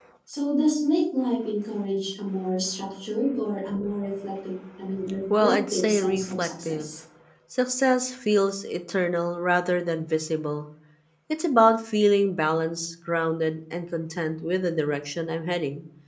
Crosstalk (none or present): present